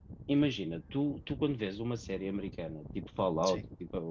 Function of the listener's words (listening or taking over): listening